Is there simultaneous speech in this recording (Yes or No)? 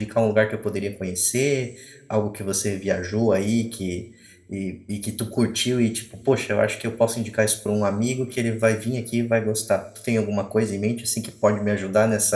No